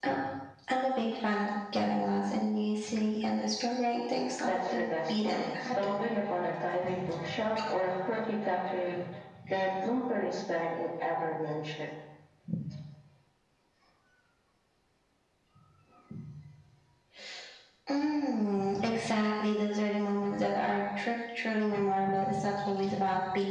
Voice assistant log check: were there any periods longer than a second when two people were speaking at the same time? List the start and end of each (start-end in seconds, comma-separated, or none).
4.5-5.7